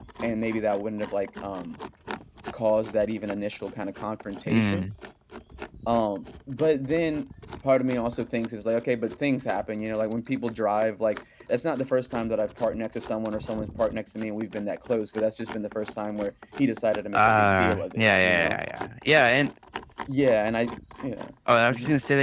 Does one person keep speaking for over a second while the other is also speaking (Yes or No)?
Yes